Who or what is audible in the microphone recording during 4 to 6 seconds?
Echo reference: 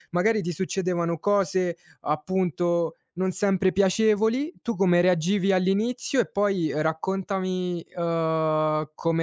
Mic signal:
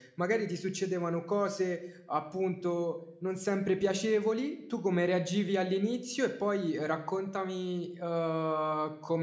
echo only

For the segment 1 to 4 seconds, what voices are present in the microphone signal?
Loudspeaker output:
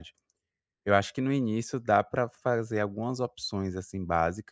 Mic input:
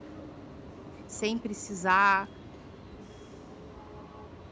user only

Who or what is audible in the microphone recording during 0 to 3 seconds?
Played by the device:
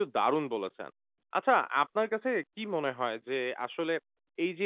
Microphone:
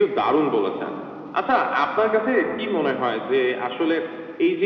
echo only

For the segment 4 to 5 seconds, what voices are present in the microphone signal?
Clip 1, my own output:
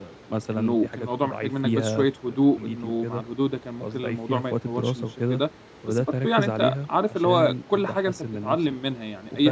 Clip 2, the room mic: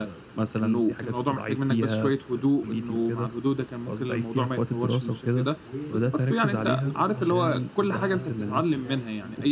echo only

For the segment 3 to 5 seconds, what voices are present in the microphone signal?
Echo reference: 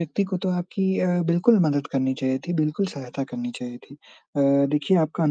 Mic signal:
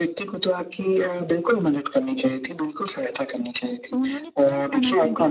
both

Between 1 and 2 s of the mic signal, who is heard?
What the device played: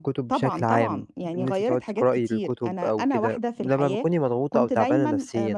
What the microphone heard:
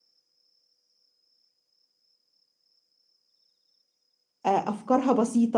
neither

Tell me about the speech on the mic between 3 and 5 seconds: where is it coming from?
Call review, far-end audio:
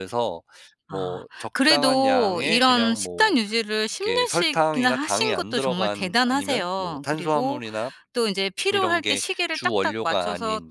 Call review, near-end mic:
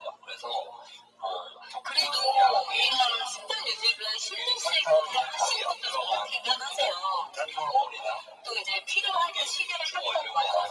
echo only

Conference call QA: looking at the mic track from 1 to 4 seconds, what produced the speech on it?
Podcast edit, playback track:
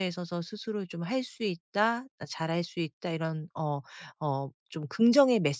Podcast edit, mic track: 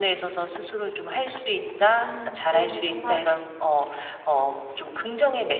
both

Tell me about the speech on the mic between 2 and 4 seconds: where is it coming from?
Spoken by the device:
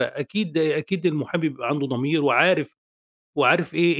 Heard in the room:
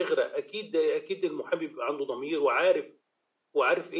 echo only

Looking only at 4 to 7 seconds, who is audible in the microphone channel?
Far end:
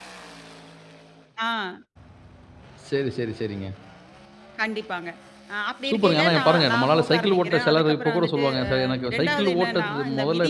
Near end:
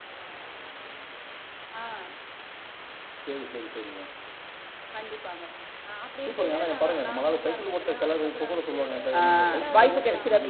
echo only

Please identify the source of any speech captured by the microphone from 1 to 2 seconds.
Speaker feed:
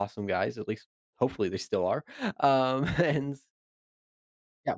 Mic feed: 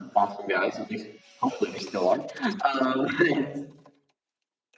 echo only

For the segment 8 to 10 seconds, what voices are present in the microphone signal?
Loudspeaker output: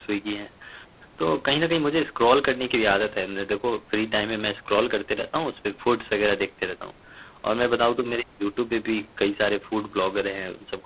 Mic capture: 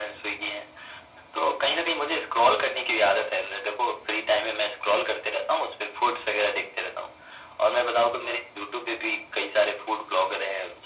echo only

